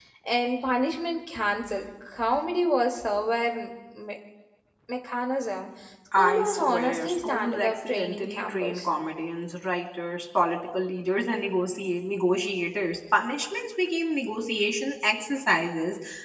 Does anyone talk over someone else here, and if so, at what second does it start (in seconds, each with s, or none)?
6.1 s